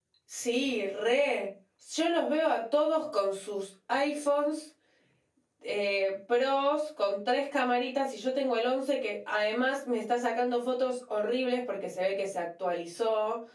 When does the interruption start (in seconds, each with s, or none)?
none